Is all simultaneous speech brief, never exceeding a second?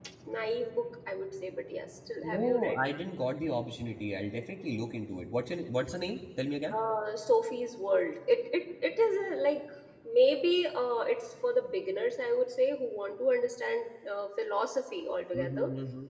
Yes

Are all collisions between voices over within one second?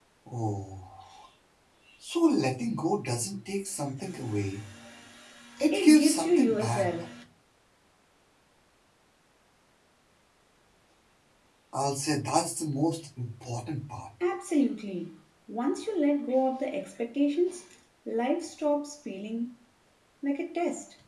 No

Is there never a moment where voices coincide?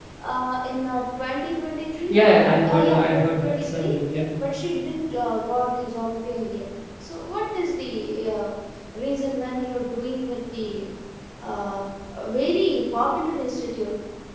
No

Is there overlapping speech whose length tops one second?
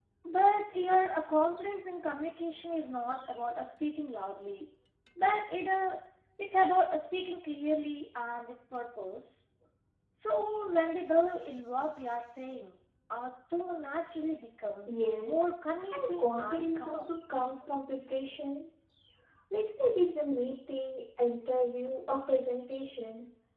Yes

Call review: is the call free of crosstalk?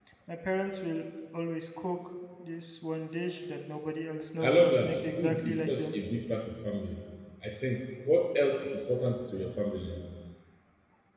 No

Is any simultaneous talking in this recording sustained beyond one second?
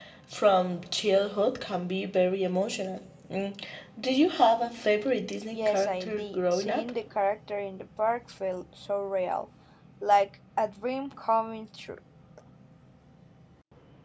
Yes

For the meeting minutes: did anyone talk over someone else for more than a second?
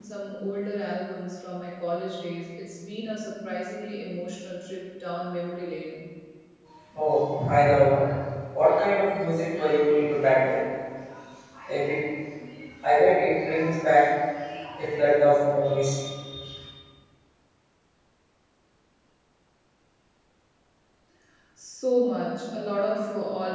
No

